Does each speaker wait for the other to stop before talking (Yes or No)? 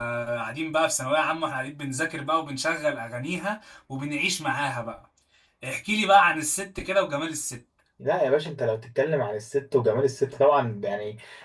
Yes